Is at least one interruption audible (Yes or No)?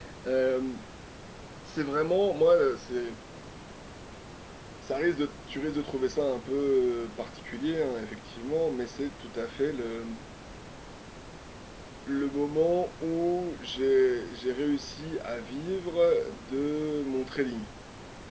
No